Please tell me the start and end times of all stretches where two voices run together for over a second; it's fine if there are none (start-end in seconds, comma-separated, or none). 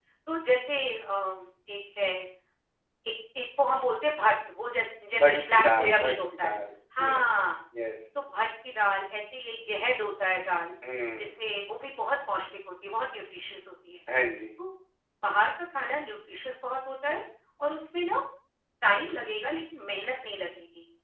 5.2-6.5